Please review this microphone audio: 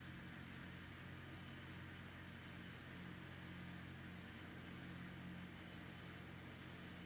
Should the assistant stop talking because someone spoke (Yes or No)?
No